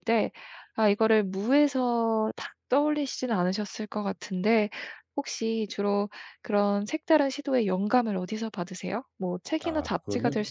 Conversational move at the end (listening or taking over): listening